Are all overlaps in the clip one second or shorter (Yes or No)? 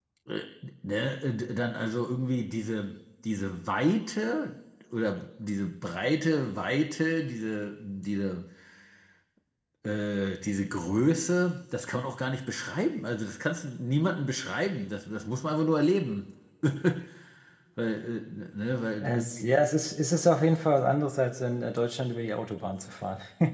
Yes